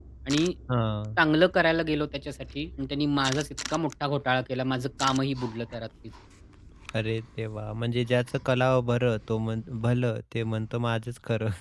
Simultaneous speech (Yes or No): No